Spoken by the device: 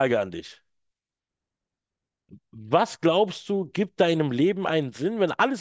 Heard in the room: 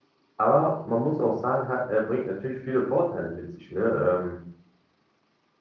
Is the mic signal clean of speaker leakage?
Yes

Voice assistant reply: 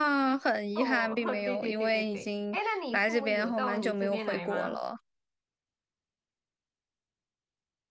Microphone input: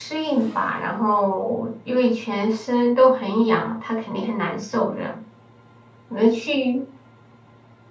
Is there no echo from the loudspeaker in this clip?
Yes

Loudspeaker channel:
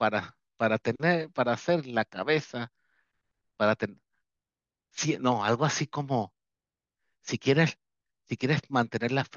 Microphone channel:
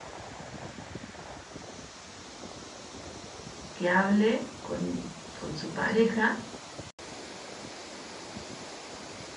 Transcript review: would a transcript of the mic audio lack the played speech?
Yes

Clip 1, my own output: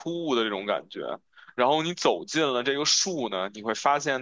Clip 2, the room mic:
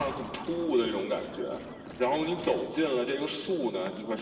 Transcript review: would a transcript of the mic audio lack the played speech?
No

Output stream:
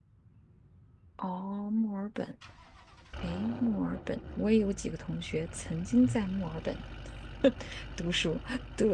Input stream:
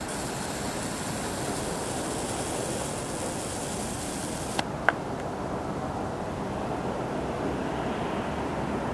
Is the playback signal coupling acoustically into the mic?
No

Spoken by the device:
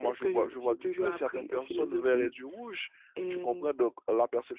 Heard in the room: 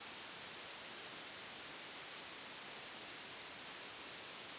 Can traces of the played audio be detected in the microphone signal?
No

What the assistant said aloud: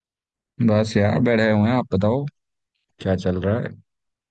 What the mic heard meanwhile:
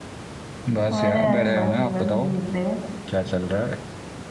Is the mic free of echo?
No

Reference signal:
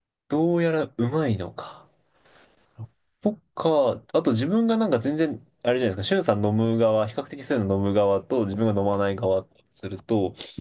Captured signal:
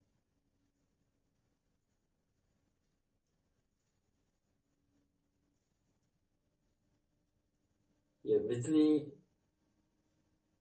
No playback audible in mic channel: Yes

